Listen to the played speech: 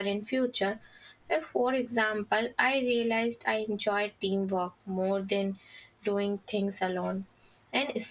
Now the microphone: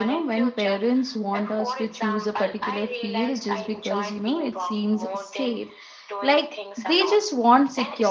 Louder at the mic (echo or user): user